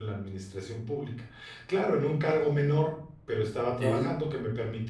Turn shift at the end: No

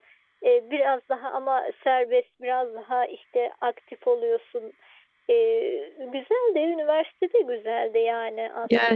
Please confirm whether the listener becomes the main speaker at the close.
Yes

